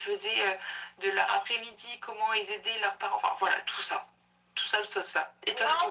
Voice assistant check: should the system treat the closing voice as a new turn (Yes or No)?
No